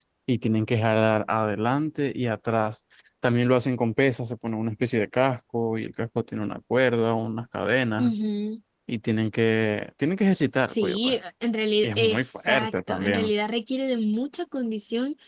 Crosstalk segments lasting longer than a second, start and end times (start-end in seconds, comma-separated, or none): 11.8-13.3